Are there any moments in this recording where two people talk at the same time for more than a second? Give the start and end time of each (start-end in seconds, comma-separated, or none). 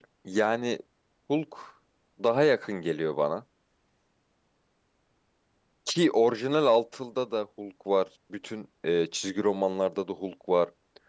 none